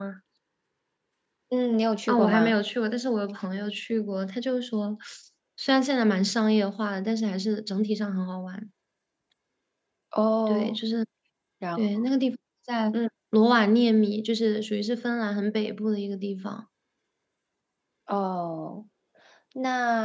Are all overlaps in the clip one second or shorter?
Yes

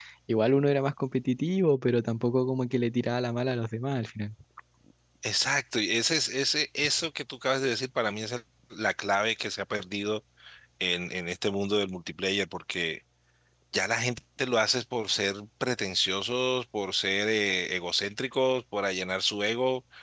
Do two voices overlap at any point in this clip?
No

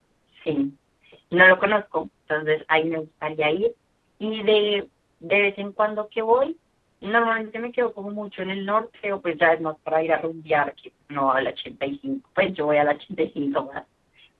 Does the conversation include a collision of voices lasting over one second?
No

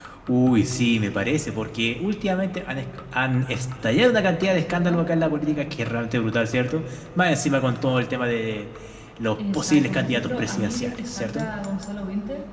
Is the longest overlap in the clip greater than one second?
Yes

